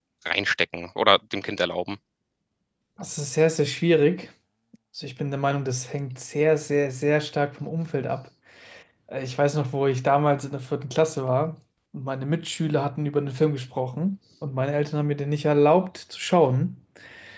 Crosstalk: none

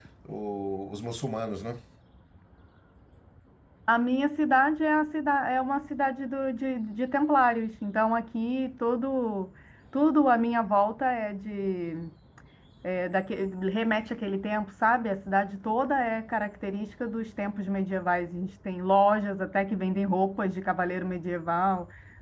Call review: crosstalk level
none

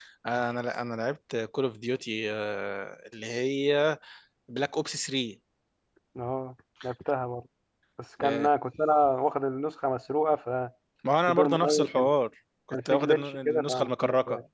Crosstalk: present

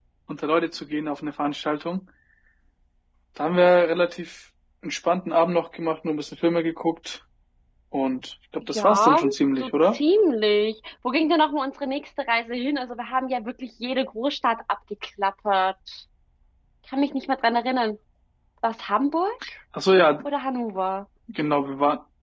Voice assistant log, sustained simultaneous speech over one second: present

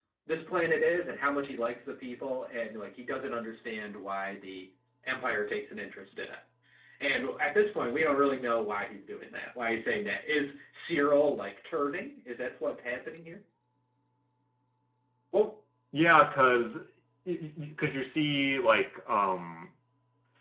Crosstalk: none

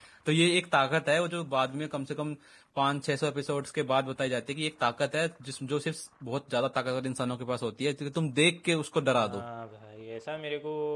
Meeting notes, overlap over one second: none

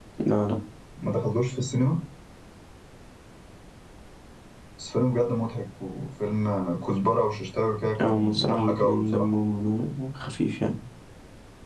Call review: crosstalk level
present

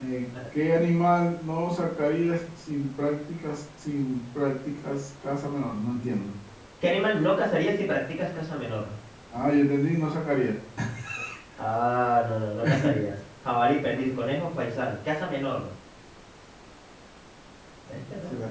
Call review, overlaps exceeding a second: none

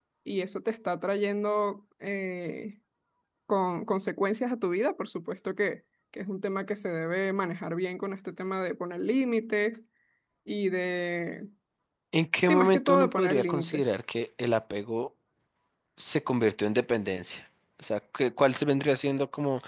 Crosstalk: present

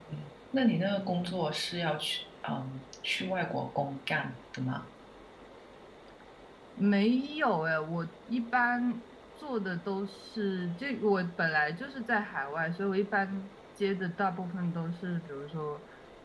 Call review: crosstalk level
none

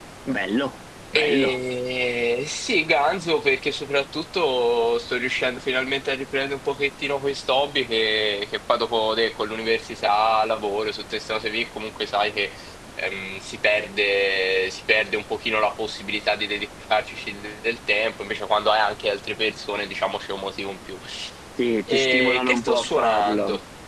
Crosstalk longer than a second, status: present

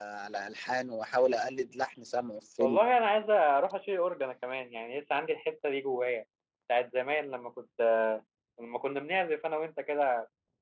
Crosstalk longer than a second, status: none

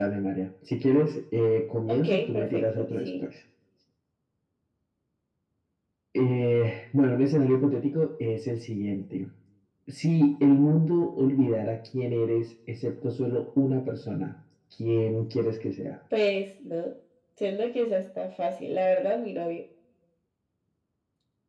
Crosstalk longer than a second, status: present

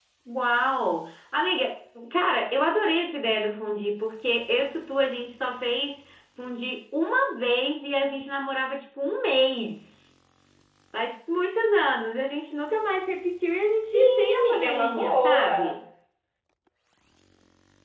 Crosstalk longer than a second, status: present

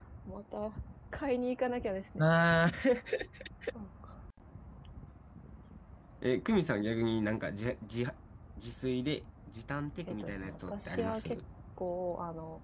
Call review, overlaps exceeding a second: present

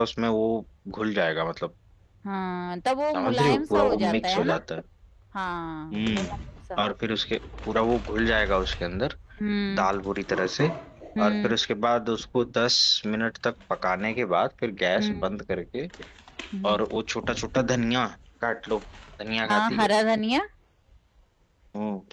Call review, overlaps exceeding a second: present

